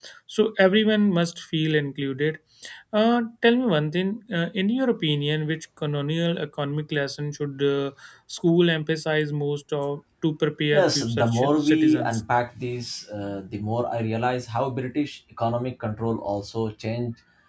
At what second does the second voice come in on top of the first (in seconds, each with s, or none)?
10.7 s